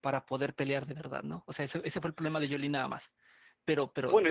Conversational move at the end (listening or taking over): taking over